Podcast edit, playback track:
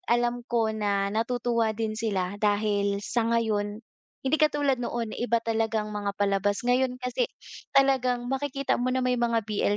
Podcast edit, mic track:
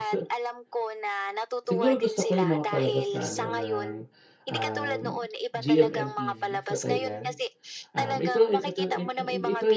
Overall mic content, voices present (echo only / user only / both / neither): both